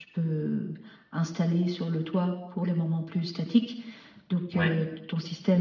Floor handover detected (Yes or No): No